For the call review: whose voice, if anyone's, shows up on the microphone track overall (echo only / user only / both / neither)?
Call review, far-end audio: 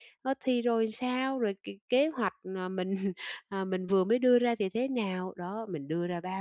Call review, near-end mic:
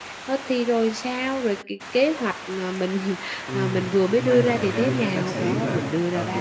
both